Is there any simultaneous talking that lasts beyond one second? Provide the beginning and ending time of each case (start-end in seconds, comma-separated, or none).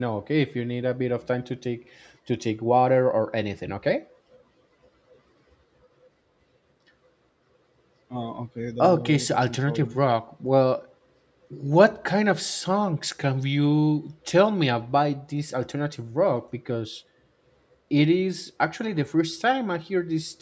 8.8-10.0